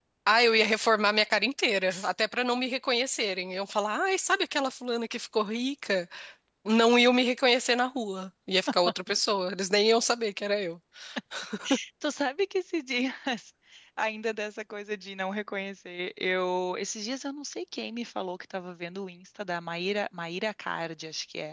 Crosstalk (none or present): none